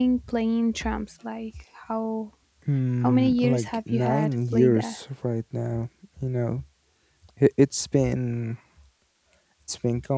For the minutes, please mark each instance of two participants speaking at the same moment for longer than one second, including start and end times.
3.0-5.0

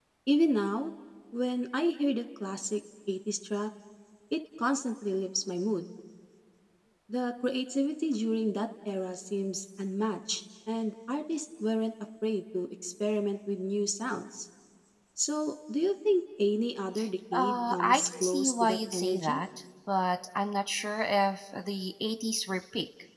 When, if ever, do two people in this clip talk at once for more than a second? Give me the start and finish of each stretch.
17.3-19.4

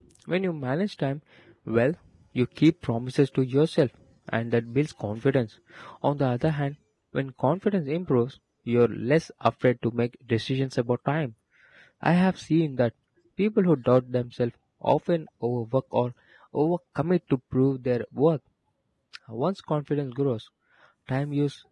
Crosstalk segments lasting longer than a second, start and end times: none

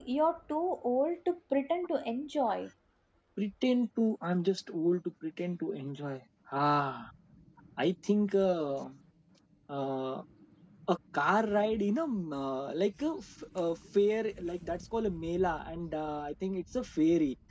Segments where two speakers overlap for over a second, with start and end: none

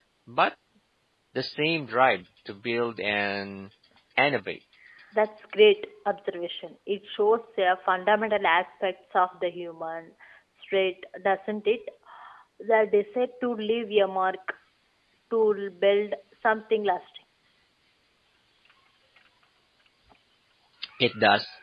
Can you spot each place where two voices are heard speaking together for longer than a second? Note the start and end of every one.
none

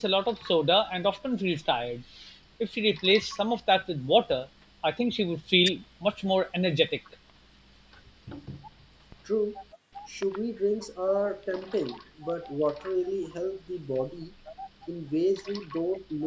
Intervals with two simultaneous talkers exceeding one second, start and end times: none

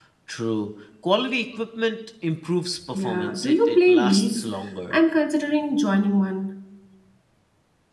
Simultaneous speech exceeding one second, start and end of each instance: 2.9-4.5

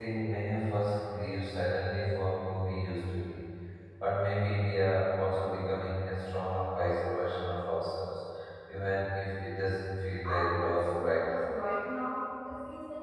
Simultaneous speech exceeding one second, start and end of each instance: 10.2-11.6

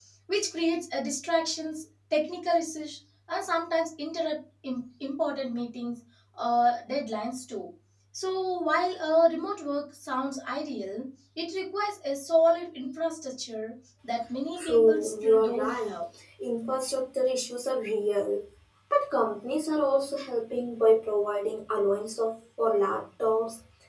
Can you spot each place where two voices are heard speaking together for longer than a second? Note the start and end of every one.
14.6-15.9

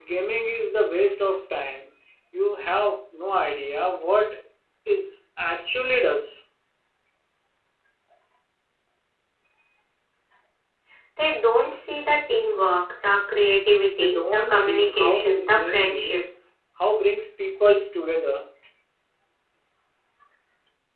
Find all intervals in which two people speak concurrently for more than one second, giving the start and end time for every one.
14.0-16.2

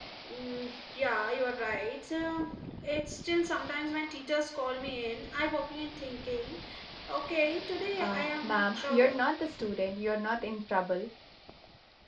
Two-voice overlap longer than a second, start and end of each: 8.0-9.2

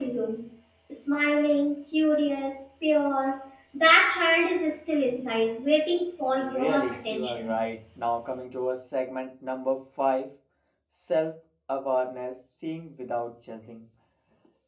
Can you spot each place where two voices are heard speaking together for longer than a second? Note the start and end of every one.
6.4-7.6

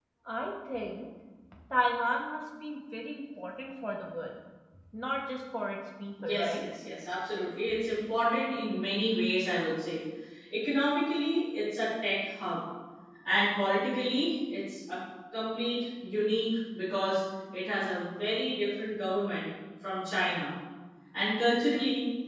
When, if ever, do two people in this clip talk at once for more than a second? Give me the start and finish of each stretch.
none

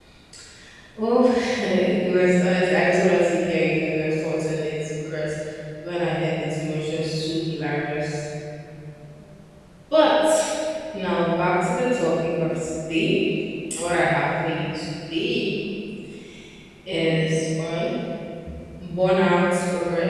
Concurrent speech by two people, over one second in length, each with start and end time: none

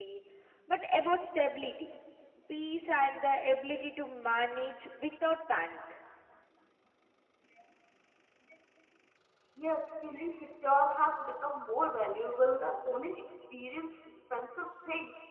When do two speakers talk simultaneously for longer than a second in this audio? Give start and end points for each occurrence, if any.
none

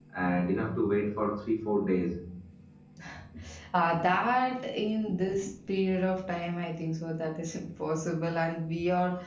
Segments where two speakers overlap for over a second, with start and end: none

